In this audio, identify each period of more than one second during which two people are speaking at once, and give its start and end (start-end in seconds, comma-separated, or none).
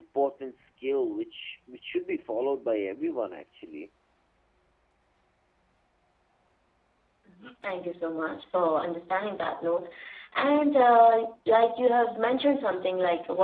none